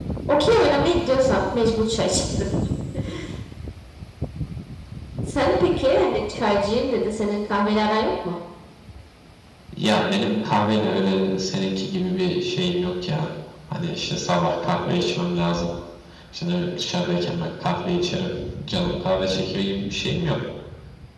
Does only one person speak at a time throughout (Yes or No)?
Yes